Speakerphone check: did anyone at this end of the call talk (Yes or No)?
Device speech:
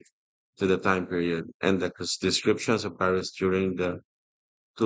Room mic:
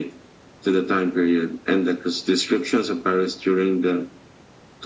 No